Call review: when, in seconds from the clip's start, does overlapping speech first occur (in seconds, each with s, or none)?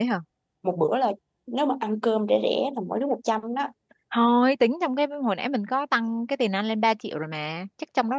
none